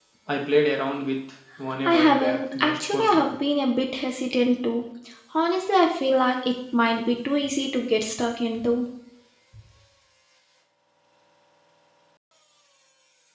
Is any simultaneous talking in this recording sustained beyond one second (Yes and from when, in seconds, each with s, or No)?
Yes, from 1.9 s